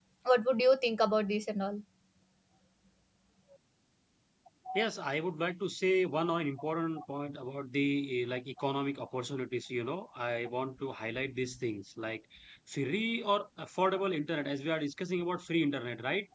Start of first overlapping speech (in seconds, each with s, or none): none